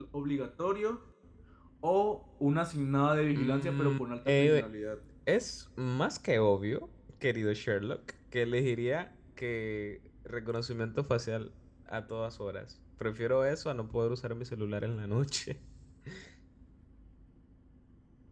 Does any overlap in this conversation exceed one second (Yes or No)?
Yes